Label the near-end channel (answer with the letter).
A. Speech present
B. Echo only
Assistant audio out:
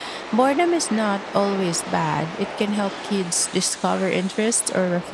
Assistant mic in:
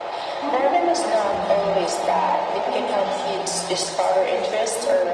A